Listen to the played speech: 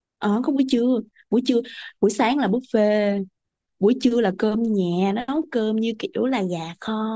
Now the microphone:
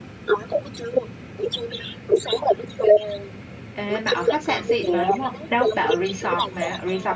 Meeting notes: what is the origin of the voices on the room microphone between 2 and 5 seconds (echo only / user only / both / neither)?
both